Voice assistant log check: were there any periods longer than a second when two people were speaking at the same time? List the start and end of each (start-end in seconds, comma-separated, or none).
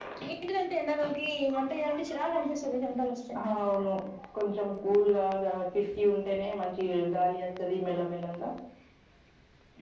none